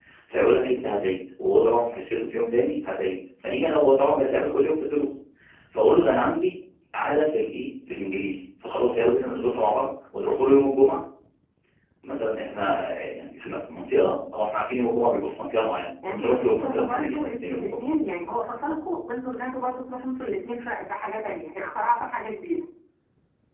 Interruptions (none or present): present